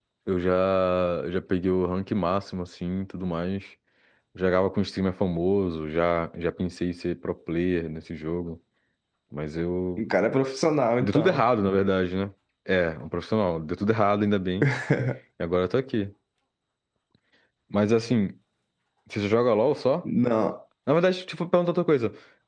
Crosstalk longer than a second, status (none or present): none